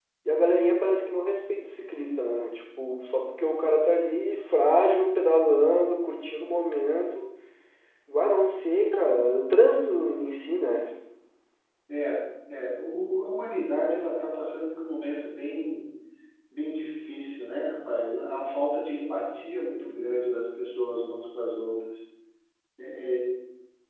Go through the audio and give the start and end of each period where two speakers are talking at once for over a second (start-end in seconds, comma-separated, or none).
none